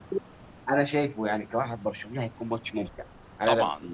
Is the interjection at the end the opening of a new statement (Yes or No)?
Yes